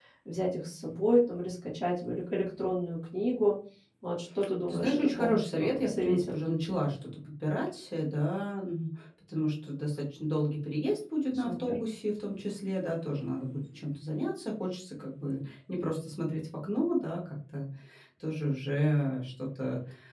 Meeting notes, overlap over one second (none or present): present